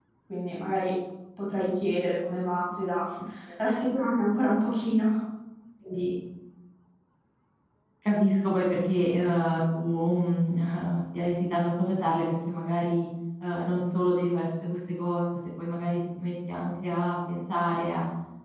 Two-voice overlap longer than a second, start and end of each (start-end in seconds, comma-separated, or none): none